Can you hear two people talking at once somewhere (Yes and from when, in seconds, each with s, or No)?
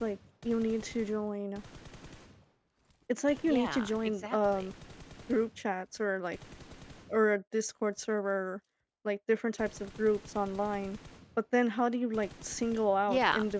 Yes, from 3.4 s